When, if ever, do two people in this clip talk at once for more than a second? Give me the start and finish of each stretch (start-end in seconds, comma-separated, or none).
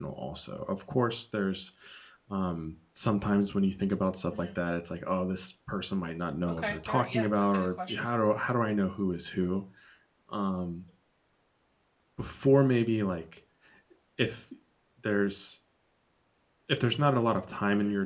6.5-8.0